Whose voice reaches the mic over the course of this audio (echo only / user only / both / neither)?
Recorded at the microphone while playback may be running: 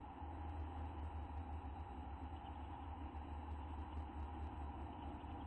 neither